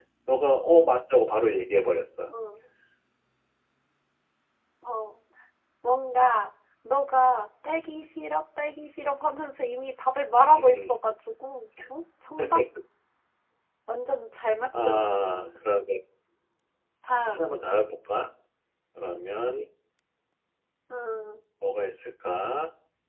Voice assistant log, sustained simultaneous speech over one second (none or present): none